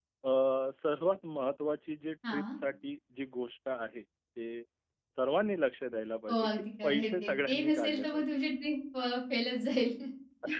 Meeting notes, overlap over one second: present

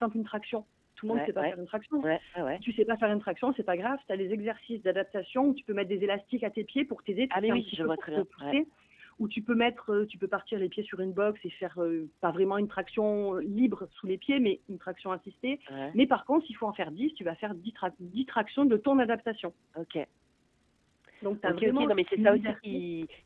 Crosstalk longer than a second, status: present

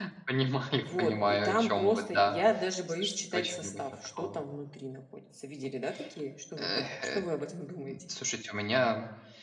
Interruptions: present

